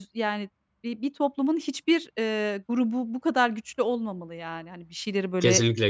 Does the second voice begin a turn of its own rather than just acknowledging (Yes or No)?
Yes